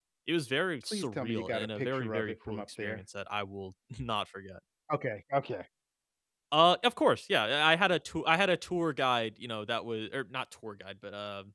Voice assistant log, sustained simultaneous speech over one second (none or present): present